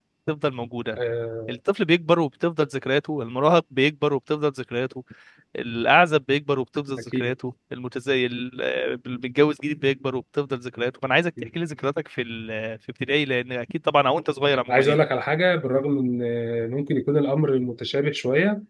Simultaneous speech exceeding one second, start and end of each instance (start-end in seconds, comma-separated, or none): none